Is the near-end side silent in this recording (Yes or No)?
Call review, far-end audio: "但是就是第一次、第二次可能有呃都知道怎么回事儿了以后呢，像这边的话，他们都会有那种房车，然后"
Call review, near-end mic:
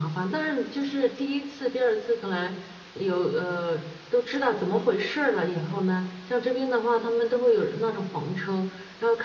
Yes